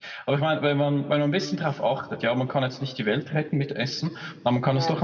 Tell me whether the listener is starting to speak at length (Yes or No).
No